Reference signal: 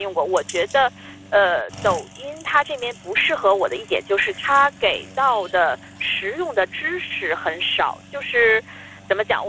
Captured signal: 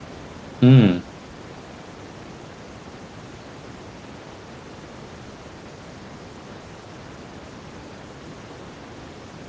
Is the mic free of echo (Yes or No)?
Yes